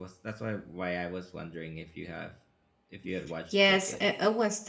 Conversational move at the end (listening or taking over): taking over